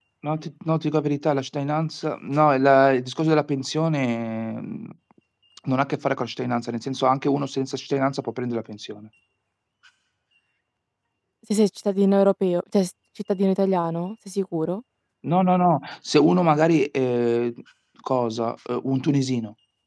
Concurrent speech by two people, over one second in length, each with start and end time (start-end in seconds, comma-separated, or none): none